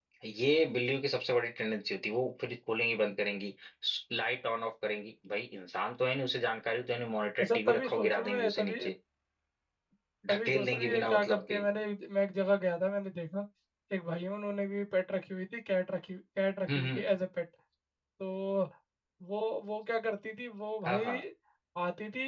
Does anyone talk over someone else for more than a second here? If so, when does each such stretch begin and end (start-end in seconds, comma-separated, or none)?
7.4-8.8, 10.3-11.7